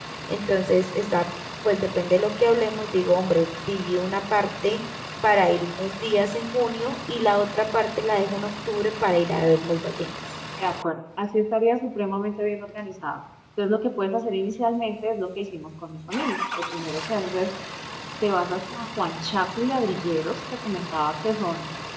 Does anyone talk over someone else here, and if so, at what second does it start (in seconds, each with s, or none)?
none